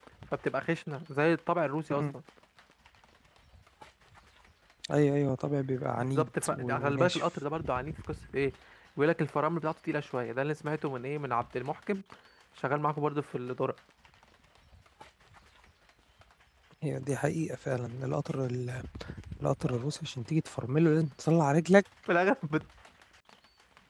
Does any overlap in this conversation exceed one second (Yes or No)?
Yes